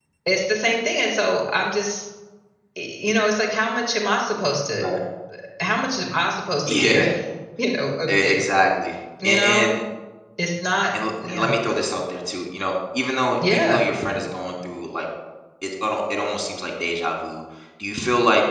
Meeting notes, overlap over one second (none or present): none